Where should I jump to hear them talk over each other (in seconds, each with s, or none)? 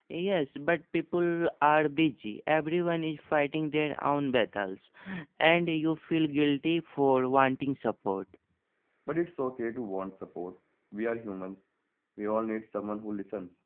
none